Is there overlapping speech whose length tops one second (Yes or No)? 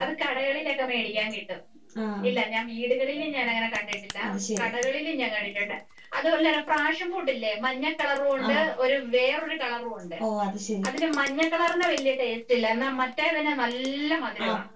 No